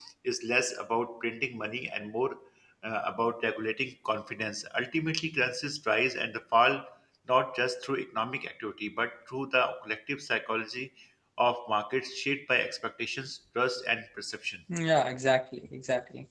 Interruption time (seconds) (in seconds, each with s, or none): none